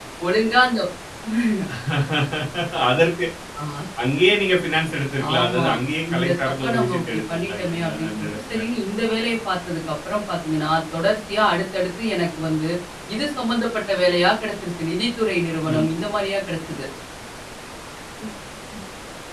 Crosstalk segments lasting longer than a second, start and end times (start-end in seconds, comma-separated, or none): 6.1-8.6